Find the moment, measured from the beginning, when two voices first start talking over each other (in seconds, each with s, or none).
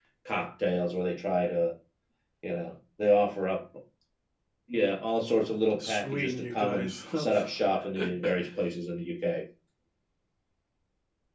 5.8 s